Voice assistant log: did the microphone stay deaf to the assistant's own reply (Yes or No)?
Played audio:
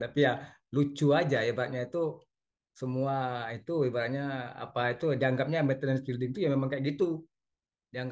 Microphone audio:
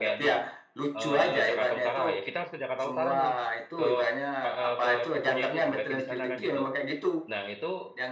No